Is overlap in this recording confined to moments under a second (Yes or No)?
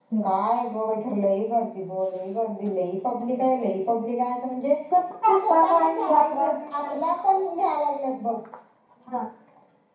No